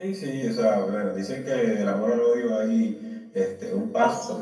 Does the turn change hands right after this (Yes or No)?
No